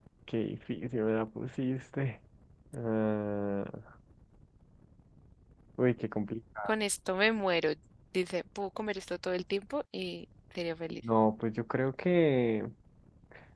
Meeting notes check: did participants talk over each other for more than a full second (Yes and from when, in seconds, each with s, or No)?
No